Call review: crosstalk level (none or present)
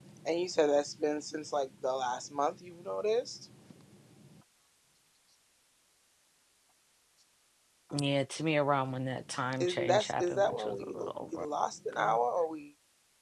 present